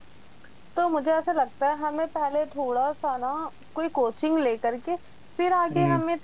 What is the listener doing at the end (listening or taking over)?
listening